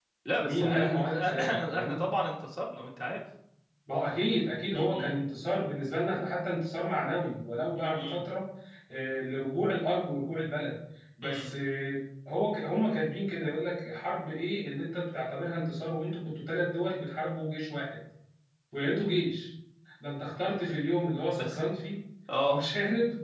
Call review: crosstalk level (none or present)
present